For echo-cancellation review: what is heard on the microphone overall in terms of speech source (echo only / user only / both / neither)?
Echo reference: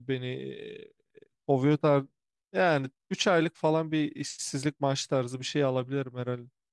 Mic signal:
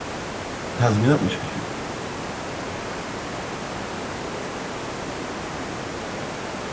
user only